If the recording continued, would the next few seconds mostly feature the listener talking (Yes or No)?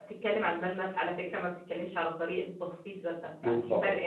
No